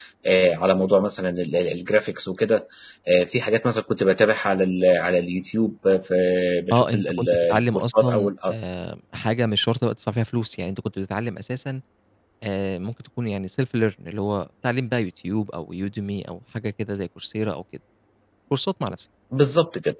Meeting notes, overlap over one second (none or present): present